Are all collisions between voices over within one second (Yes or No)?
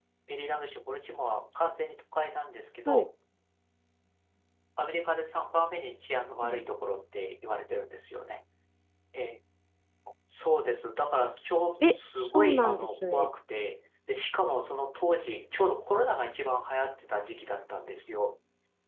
No